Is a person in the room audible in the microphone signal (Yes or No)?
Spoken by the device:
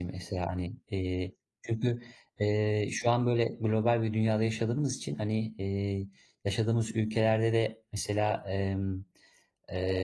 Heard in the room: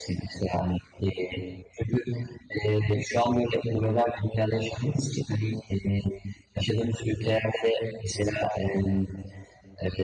No